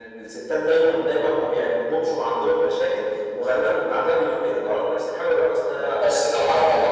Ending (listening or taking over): taking over